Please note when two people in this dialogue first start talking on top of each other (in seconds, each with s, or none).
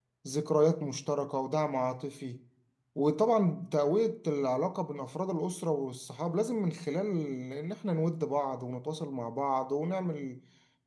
none